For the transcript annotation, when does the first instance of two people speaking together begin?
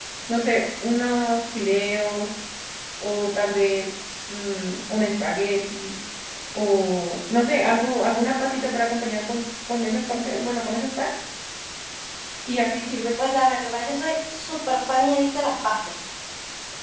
none

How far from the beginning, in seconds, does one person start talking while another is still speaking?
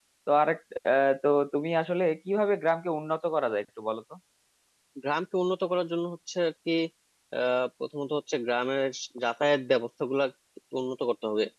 none

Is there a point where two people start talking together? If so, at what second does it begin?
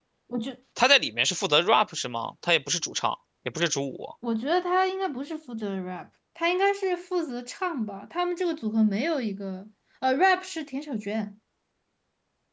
none

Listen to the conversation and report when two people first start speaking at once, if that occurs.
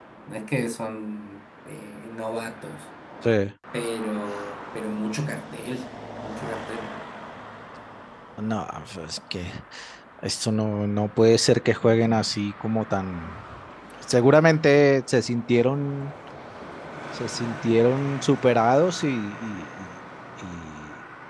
none

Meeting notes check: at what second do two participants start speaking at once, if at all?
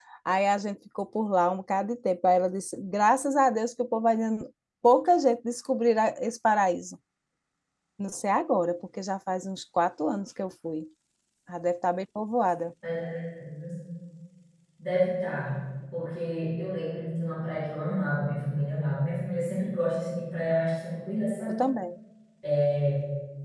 none

